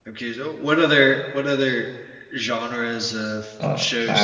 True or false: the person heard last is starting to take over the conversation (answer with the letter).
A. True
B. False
A